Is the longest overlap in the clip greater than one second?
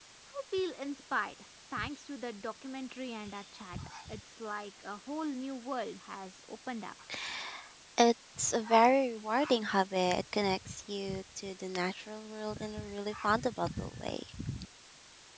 No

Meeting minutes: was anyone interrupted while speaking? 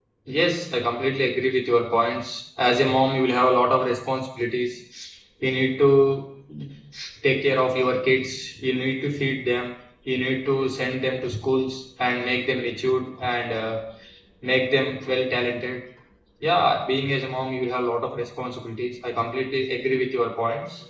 No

